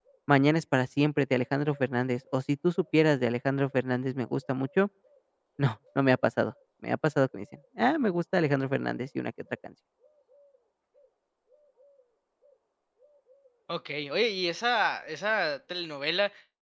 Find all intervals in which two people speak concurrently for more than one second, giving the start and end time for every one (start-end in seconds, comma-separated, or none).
none